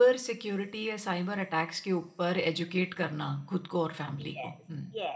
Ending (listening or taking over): taking over